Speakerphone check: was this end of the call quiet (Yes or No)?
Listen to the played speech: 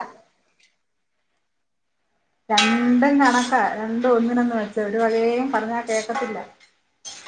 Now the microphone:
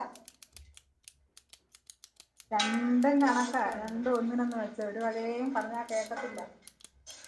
No